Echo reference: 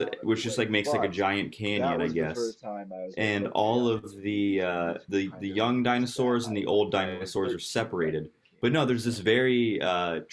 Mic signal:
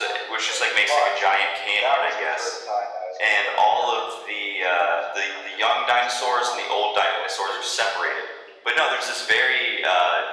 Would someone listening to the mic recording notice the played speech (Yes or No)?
Yes